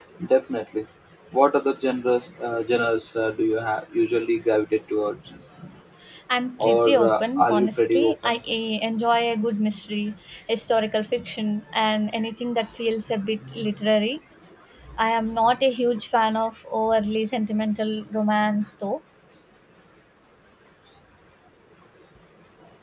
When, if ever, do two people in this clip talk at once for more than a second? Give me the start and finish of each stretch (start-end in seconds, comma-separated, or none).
6.6-8.4